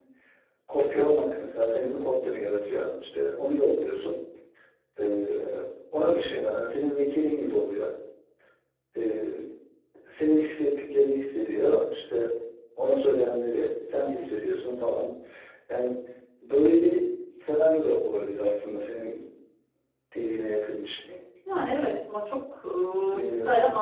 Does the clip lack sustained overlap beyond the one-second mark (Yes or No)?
Yes